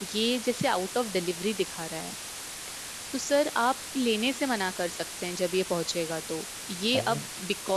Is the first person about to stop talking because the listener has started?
No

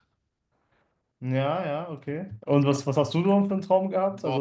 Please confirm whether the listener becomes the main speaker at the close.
Yes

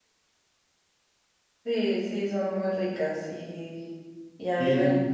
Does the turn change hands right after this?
No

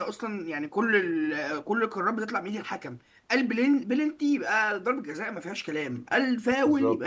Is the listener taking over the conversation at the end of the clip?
No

